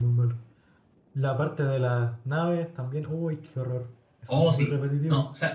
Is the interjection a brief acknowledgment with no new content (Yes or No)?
No